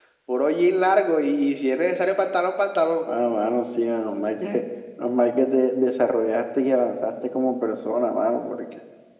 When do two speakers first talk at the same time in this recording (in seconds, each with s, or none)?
none